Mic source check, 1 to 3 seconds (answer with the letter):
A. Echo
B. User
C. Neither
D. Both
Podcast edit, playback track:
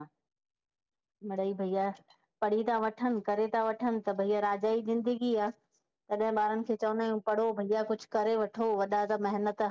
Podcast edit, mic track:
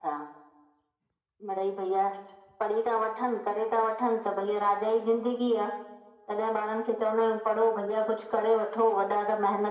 A